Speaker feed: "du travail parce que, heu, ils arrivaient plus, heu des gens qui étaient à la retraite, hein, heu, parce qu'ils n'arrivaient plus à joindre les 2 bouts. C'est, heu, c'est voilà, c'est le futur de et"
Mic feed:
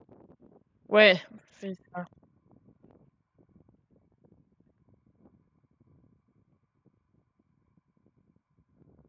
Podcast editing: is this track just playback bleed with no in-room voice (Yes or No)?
No